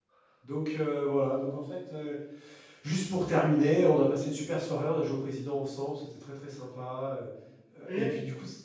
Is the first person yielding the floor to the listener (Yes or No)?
No